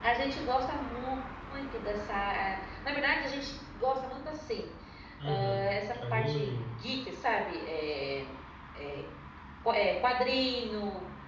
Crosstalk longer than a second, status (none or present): present